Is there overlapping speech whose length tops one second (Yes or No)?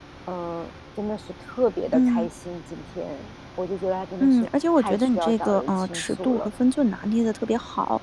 Yes